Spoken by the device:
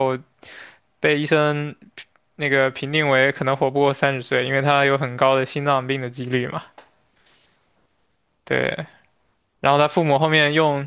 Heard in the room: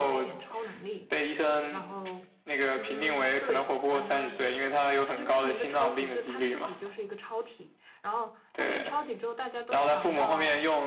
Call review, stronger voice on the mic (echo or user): echo